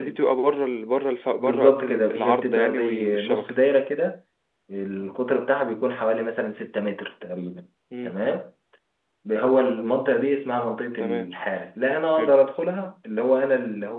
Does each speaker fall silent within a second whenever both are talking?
No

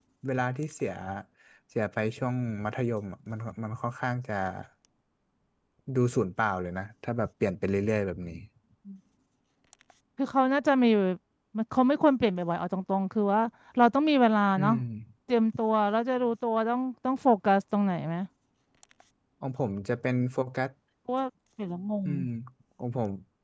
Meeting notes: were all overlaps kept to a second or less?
Yes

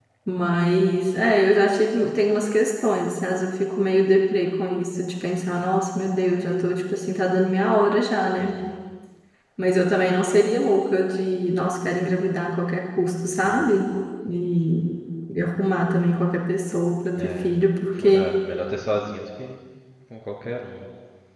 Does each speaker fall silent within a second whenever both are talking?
Yes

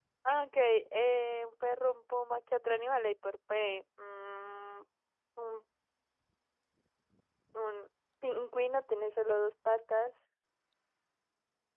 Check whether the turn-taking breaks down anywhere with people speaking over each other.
No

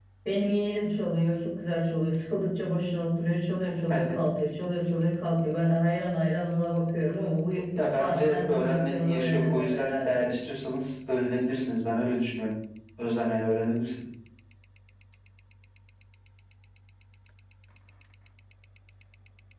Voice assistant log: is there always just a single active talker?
No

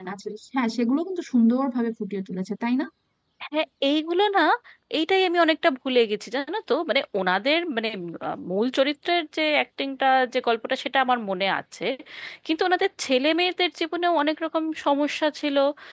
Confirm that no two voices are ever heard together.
Yes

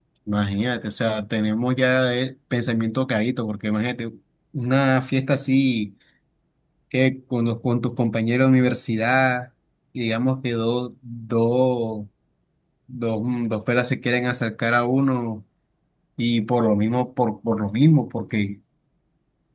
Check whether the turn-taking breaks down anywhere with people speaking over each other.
No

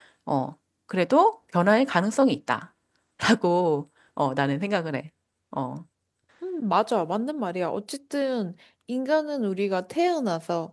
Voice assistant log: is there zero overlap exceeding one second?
Yes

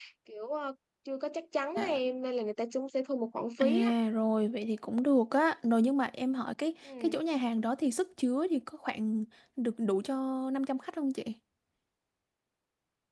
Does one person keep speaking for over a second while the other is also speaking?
No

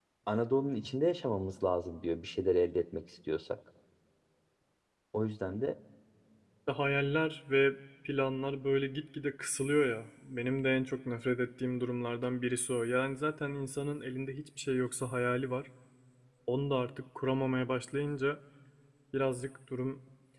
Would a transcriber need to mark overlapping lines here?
No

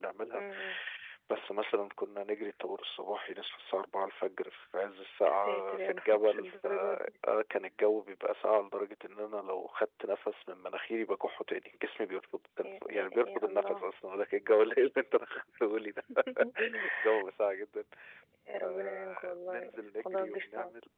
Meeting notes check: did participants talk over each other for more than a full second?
Yes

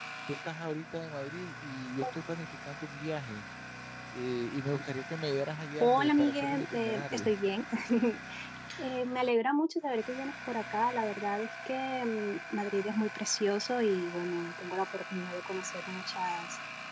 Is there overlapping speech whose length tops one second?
Yes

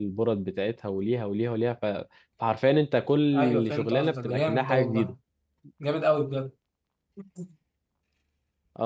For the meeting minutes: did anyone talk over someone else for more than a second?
Yes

